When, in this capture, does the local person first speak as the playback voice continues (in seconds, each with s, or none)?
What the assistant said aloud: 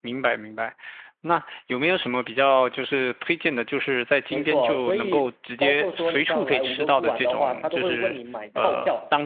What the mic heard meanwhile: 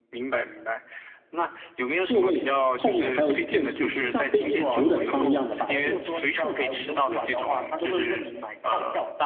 2.0 s